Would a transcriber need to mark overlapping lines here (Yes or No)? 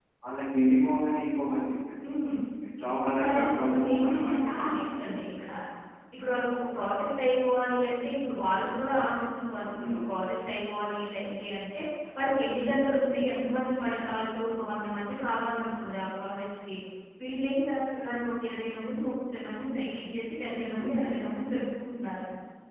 Yes